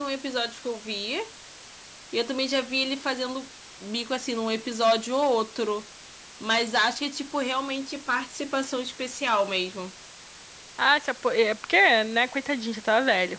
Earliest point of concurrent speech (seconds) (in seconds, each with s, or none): none